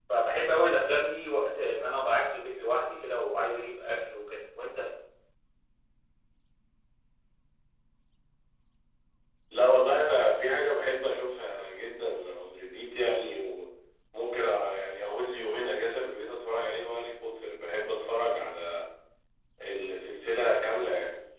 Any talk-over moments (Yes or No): No